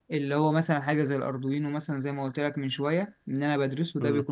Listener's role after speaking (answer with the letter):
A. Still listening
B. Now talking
A